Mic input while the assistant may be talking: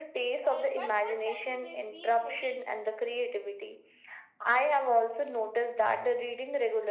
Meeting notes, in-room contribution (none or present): present